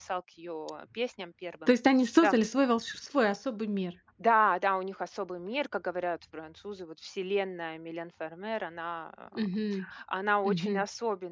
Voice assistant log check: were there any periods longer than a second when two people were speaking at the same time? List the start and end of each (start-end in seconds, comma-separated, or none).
none